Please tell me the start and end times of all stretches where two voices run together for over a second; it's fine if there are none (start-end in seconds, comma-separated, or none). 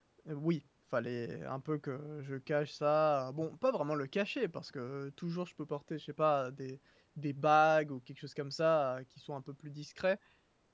none